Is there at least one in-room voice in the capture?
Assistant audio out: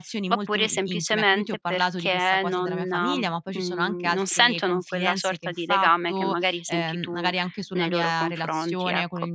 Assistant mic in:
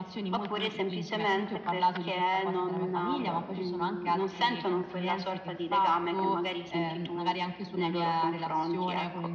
No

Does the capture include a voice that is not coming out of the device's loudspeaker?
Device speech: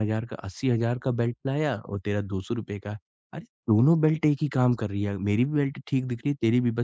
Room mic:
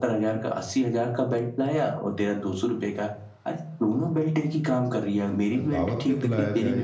Yes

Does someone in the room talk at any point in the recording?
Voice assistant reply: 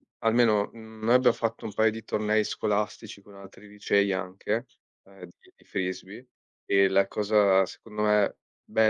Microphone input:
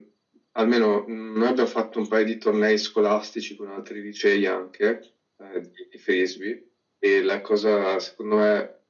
No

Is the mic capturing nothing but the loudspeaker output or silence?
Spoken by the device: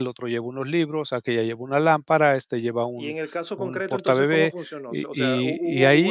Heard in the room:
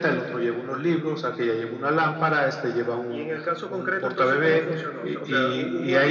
Yes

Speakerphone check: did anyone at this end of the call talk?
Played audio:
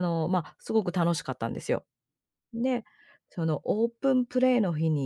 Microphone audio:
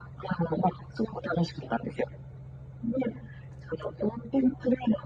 No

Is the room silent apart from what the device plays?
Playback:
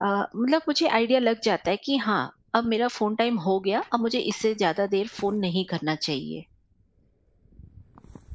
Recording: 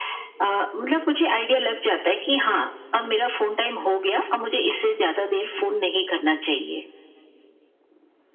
Yes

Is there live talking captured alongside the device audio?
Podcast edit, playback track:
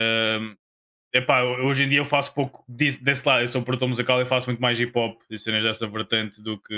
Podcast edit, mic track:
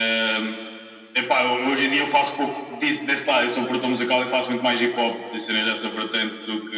No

